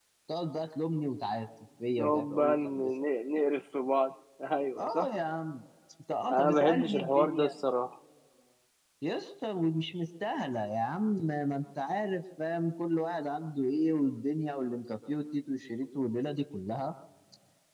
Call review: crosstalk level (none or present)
present